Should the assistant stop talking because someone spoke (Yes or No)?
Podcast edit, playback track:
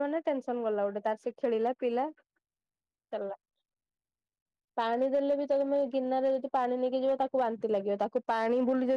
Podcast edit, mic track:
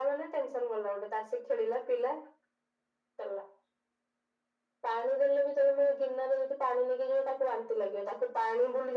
No